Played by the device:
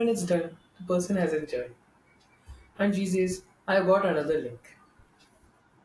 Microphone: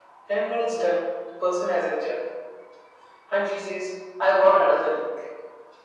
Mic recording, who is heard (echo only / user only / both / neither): echo only